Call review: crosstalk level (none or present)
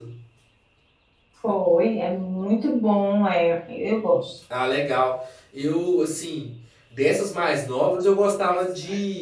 none